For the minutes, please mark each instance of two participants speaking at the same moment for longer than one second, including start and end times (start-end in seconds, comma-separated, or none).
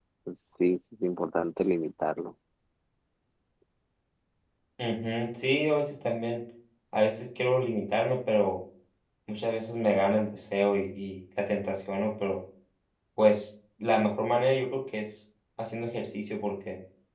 none